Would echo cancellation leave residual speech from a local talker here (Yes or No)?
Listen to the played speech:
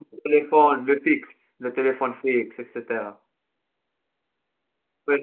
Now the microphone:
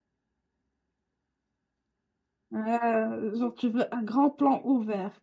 Yes